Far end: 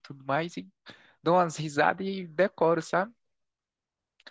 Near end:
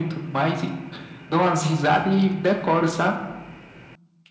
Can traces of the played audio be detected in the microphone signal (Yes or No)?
Yes